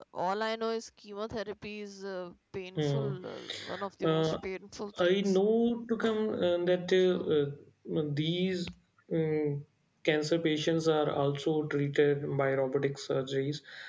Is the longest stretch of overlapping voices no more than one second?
Yes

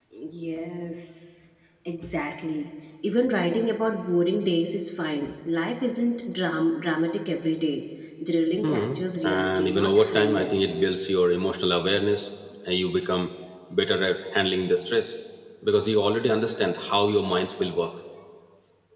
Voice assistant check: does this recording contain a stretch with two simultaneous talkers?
Yes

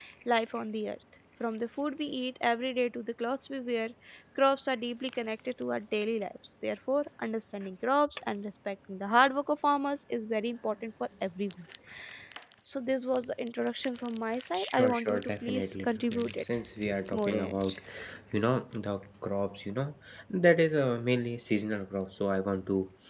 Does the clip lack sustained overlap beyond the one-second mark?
No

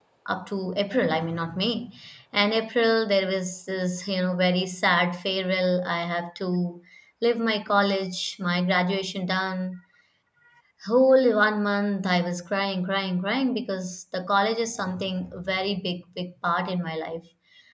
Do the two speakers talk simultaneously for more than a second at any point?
No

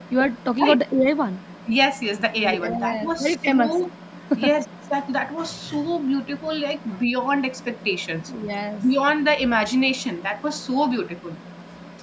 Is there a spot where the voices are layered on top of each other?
Yes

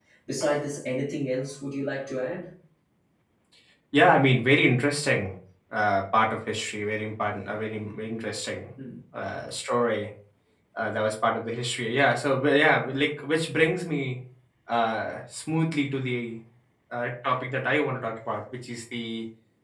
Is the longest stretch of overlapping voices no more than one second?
Yes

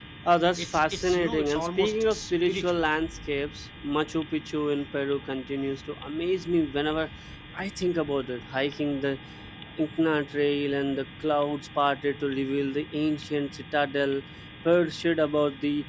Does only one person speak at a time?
No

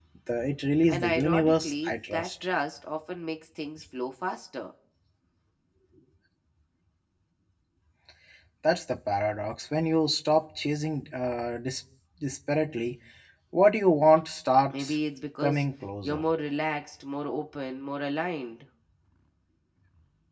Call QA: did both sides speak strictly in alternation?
No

